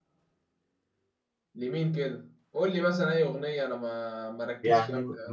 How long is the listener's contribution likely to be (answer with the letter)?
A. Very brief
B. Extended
B